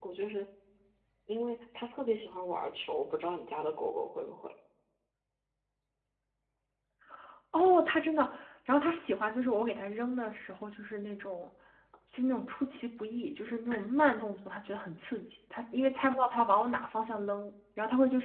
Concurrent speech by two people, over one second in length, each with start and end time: none

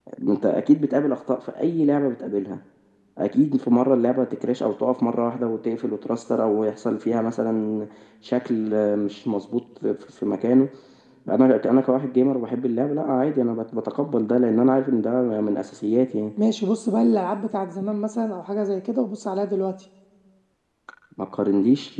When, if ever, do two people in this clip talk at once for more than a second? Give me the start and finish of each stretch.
none

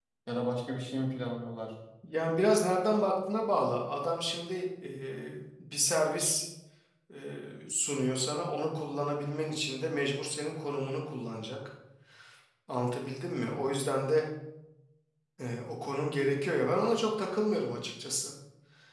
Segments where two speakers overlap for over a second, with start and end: none

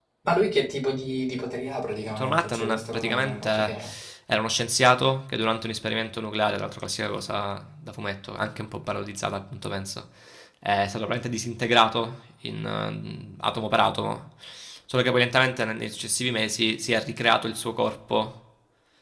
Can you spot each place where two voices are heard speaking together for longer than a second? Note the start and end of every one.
2.1-3.8

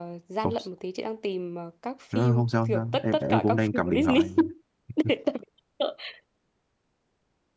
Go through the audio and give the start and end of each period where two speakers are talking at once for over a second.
2.1-4.2

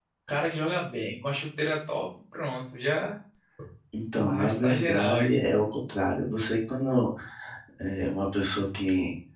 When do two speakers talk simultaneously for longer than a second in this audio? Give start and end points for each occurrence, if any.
4.2-5.4

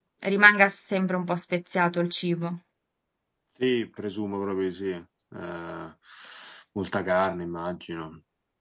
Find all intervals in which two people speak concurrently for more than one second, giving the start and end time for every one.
none

